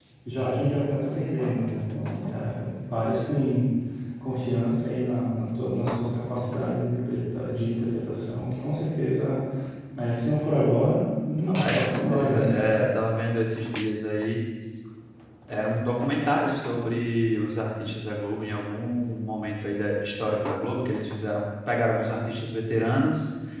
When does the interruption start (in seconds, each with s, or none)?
11.5 s